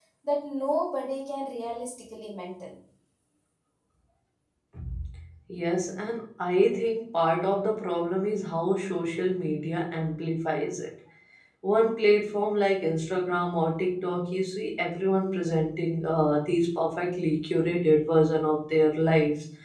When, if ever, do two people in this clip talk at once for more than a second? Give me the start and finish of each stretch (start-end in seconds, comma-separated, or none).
none